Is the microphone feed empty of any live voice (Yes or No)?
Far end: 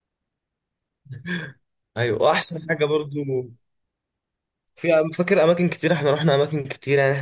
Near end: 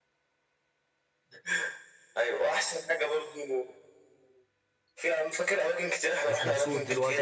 No